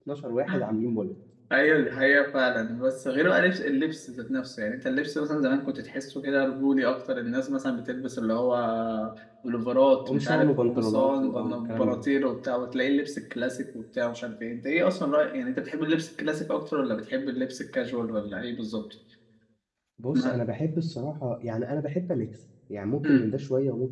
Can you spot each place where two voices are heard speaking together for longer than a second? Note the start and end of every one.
10.1-12.0

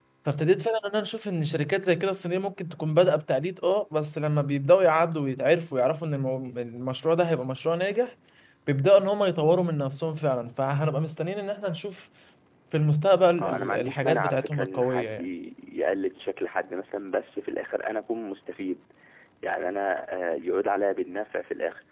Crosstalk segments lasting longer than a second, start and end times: 13.4-15.2

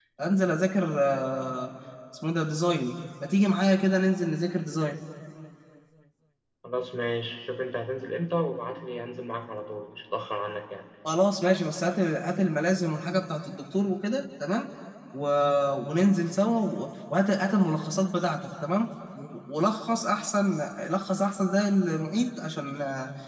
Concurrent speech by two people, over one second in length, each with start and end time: none

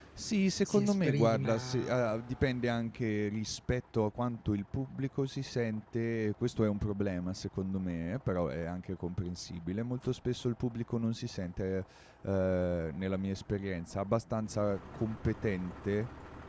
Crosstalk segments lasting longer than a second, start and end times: 0.7-2.3

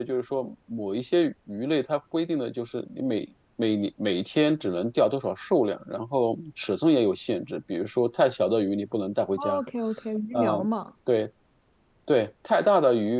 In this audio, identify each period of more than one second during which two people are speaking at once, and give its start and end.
none

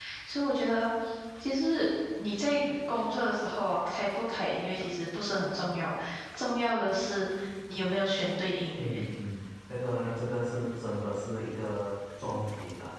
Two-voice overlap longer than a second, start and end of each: none

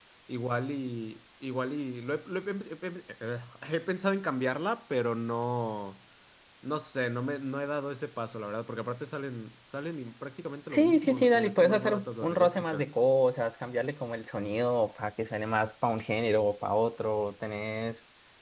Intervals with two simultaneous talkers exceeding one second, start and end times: 10.7-12.9

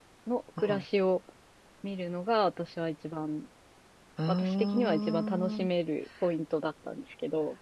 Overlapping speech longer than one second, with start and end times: 4.3-5.7

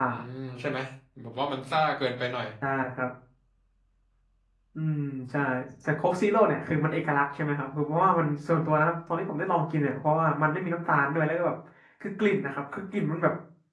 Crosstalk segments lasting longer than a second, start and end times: none

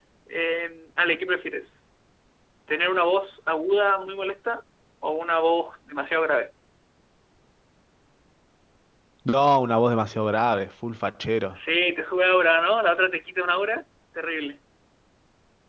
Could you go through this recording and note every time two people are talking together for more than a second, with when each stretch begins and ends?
none

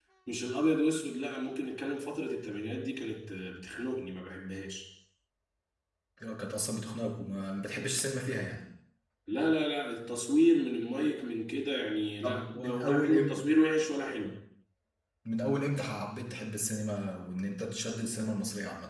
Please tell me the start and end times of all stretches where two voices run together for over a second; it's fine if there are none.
12.2-13.4

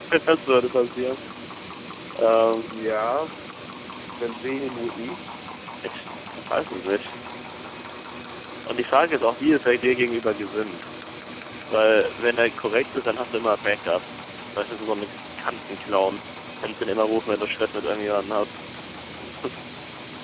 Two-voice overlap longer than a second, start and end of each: none

